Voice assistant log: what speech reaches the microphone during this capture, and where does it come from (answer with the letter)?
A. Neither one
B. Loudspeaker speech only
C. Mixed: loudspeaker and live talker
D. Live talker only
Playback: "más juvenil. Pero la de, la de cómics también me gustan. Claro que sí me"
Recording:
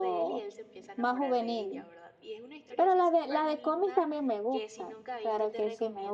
C